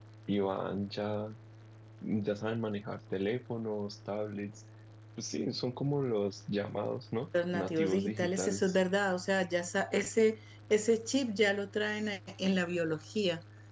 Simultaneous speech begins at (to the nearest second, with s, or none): 7 s